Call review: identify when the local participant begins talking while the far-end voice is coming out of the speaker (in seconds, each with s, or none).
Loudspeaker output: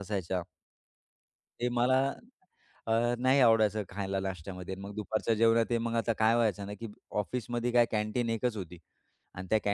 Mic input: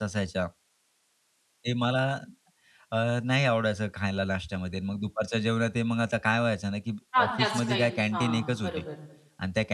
7.2 s